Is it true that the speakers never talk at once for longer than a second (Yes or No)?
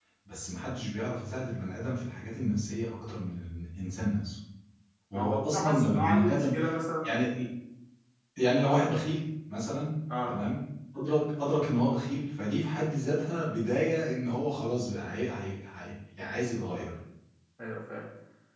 No